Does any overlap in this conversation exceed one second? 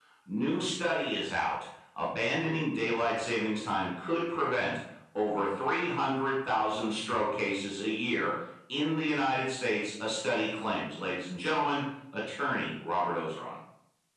No

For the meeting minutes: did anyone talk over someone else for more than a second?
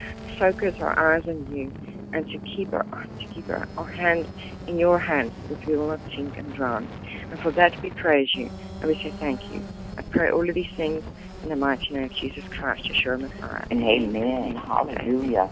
Yes, from 13.7 s

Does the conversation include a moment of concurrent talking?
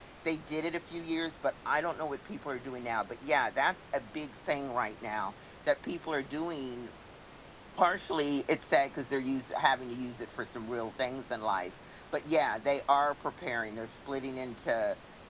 No

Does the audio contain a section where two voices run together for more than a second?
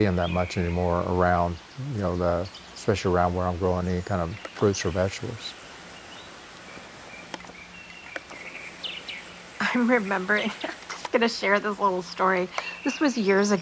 No

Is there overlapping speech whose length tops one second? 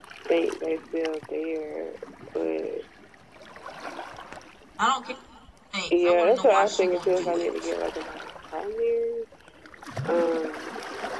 Yes, from 6.0 s

